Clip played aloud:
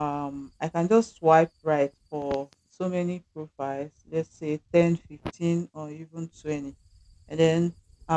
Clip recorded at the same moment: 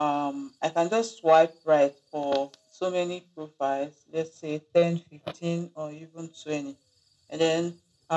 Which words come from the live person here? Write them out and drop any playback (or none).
none